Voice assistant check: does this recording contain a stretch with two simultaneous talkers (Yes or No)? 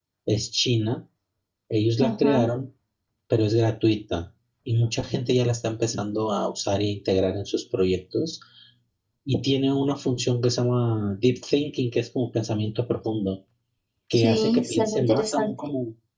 Yes